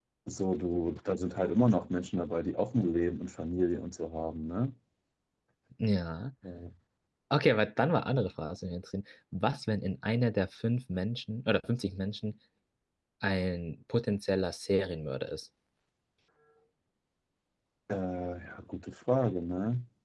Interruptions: none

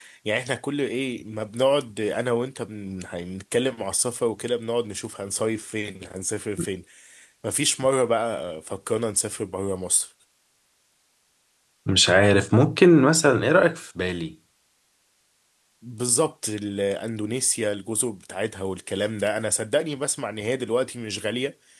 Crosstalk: none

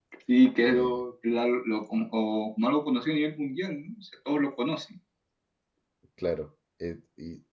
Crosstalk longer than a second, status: none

